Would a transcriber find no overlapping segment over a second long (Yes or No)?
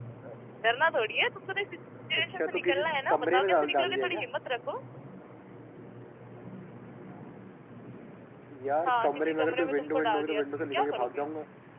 No